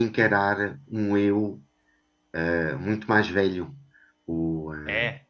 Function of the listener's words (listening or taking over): listening